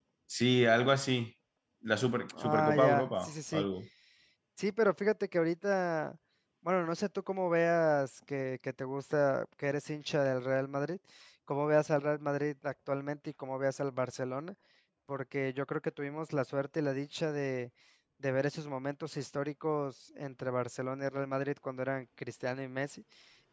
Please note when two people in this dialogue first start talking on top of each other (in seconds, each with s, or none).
2.4 s